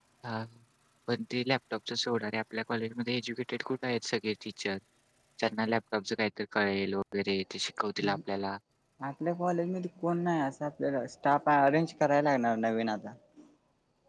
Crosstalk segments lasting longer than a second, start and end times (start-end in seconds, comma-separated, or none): none